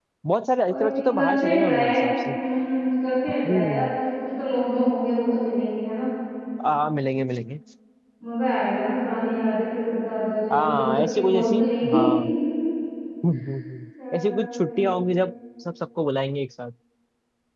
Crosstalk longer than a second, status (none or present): present